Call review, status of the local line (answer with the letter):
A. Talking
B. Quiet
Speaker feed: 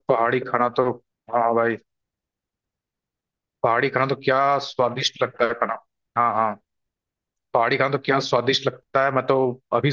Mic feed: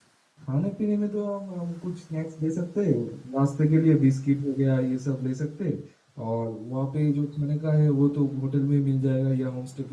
A